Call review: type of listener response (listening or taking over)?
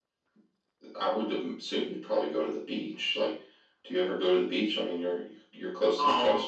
taking over